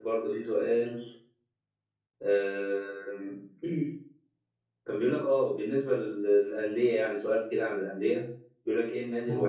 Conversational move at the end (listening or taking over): listening